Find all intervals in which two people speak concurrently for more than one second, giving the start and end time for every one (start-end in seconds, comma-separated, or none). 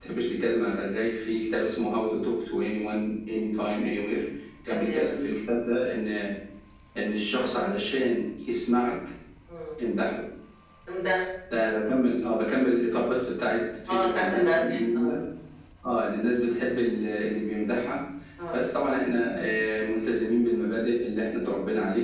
13.9-15.1